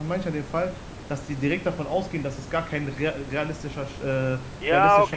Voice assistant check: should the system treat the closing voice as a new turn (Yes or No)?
Yes